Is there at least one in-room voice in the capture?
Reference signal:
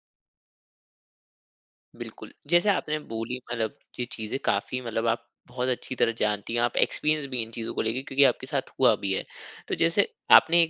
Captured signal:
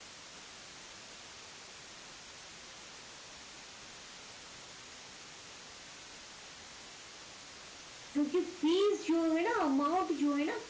Yes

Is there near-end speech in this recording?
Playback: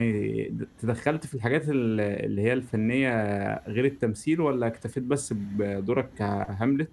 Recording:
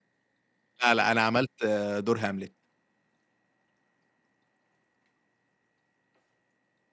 Yes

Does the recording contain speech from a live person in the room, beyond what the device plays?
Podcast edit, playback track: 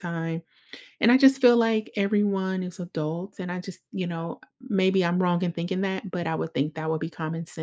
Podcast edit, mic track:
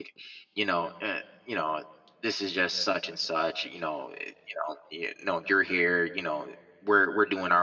Yes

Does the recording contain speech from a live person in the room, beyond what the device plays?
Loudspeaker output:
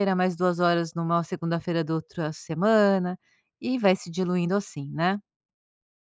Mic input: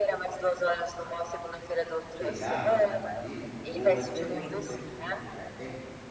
Yes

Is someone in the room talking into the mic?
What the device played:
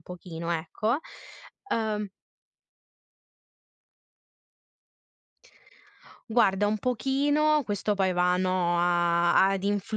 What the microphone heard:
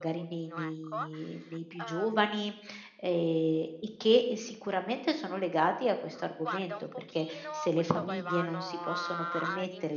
Yes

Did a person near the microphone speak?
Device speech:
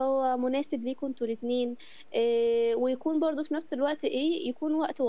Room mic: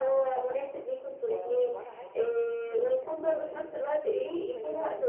Yes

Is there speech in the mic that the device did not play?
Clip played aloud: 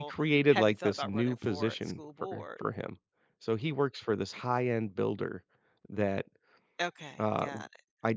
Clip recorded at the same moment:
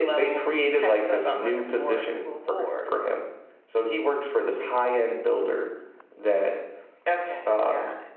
No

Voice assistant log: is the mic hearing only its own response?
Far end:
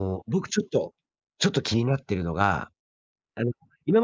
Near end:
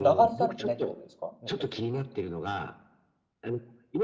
No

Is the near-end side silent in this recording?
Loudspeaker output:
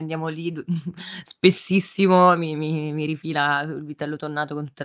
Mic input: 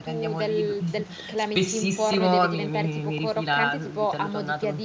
No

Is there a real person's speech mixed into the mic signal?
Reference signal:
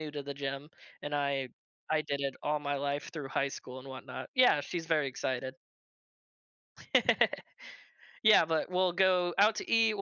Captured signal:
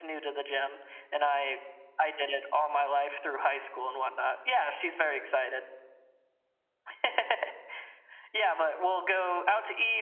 No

